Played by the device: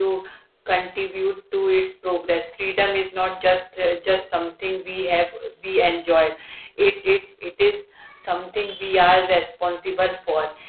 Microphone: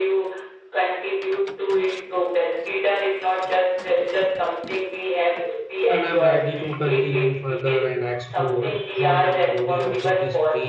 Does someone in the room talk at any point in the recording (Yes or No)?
Yes